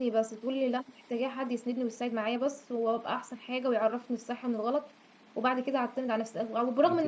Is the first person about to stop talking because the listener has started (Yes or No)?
No